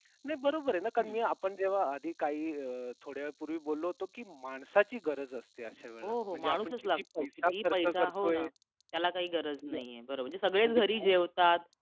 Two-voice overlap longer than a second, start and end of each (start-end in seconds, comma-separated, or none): 6.0-8.5